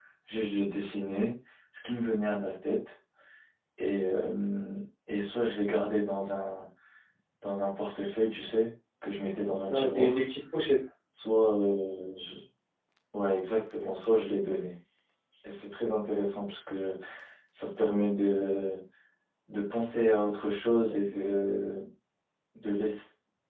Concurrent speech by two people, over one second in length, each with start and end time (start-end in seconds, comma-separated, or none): none